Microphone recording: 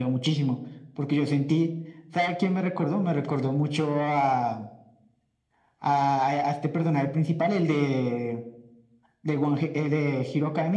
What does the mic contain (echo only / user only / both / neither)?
echo only